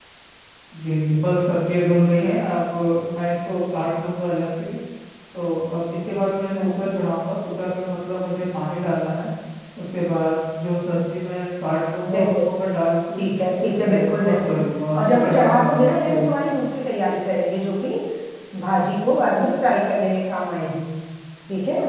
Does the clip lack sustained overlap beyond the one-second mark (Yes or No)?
No